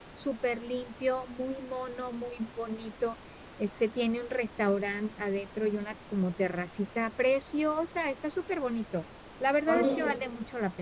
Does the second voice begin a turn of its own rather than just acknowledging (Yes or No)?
No